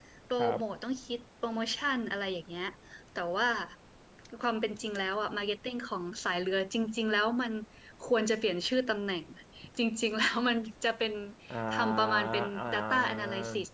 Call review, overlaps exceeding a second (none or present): present